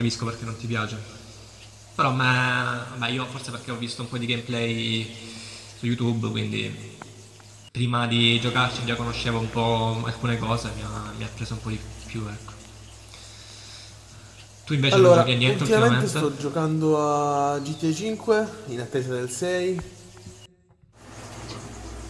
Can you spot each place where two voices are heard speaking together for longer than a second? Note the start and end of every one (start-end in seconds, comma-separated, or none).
14.9-16.2